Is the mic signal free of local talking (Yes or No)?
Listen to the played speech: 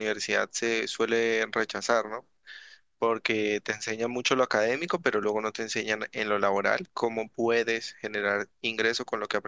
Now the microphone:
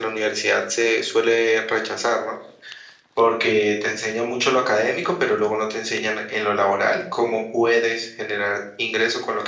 Yes